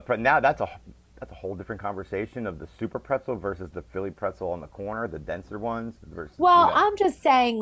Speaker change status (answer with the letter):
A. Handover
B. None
A